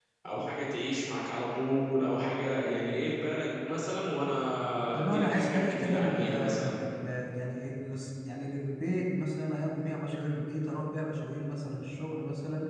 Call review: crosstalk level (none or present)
present